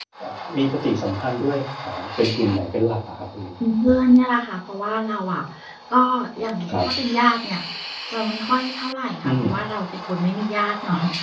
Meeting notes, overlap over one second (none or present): none